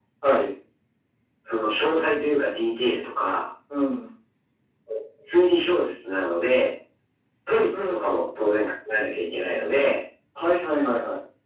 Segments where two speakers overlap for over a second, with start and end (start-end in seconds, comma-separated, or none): none